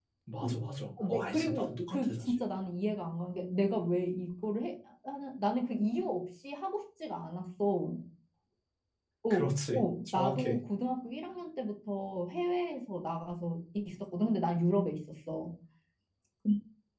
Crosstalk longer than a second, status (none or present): present